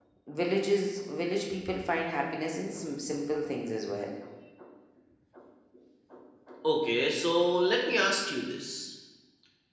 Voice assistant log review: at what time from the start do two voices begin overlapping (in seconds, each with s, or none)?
none